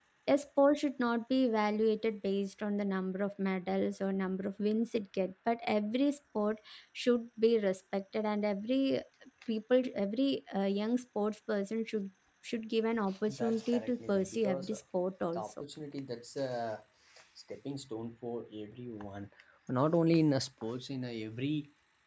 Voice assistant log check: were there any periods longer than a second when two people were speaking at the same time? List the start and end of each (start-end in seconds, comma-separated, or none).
13.3-14.8